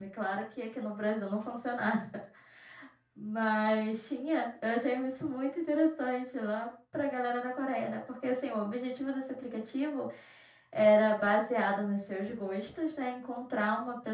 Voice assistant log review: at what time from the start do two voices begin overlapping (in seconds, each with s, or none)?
none